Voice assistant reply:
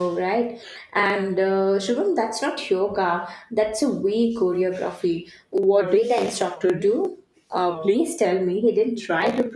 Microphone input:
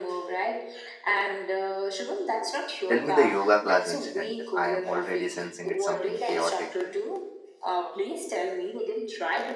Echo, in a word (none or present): present